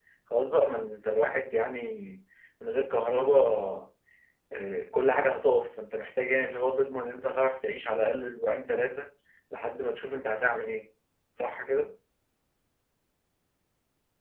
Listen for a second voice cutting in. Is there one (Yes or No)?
No